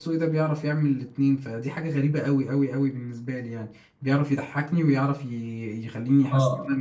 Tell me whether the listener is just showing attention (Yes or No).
No